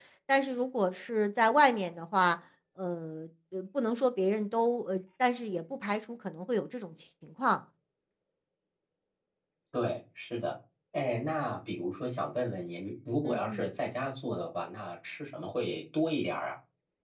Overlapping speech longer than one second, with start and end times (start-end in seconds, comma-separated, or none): none